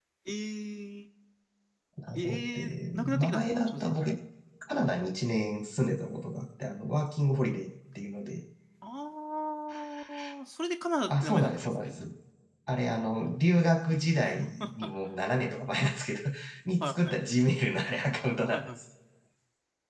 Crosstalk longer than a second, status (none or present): present